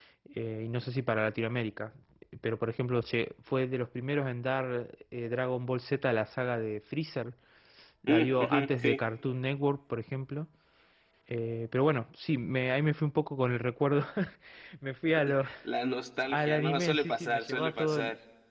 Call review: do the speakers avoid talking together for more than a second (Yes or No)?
No